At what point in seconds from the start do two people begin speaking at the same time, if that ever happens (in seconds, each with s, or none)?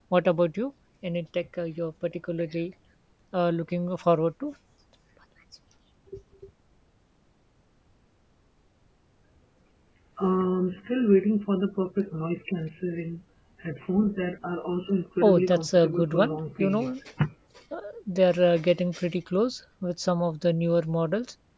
15.2 s